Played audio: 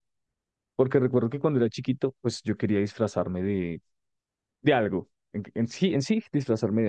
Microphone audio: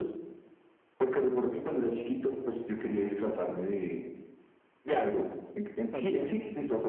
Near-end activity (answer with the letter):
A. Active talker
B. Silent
A